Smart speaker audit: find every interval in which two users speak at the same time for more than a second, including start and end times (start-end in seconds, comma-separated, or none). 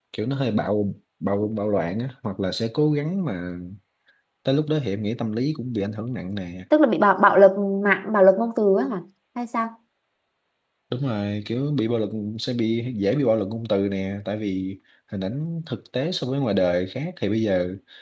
none